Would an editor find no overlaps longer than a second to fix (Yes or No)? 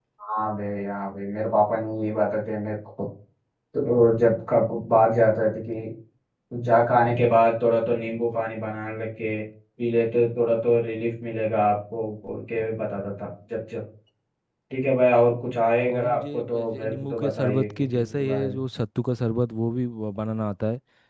No